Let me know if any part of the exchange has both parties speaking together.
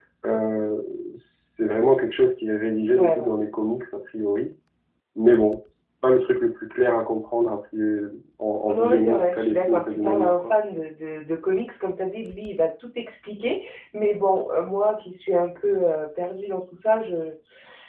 Yes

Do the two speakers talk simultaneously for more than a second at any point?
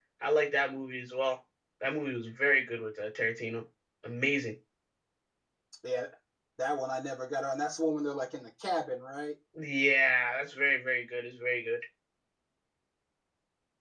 No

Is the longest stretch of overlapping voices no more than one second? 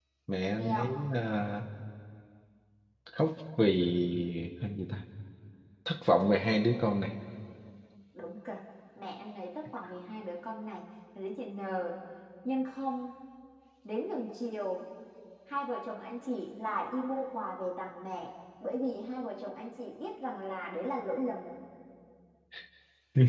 Yes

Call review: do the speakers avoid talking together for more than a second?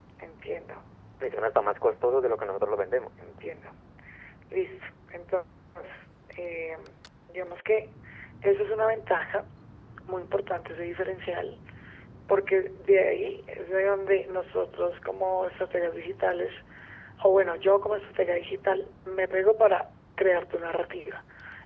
Yes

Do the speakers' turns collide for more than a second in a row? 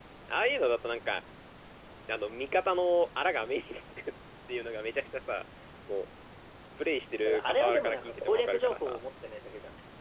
Yes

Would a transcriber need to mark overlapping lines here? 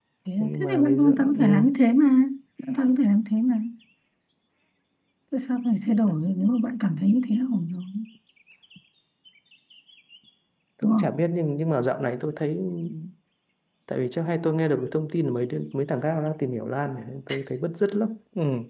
Yes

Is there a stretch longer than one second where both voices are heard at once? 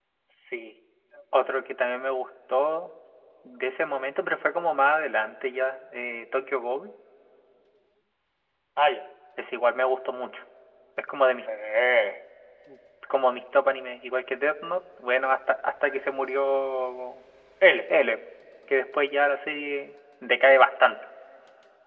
No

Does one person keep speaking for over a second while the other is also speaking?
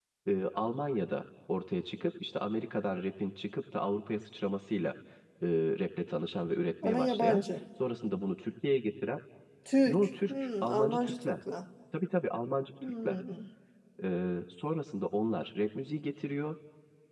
Yes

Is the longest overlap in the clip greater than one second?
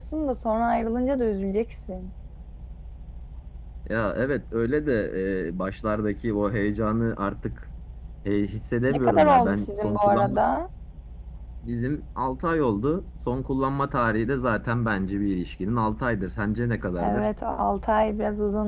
Yes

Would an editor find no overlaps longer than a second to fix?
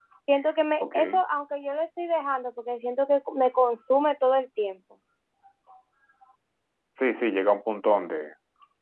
Yes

